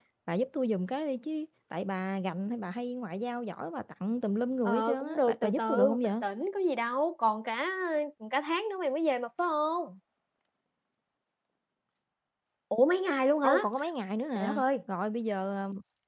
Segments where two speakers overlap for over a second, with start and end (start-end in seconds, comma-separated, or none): 4.7-6.1